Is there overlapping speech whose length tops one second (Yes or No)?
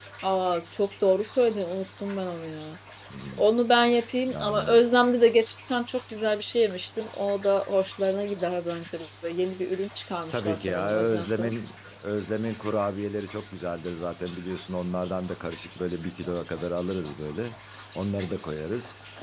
Yes